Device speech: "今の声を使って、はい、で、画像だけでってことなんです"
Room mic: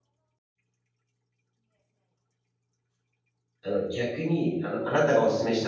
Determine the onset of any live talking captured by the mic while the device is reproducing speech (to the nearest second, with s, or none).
4 s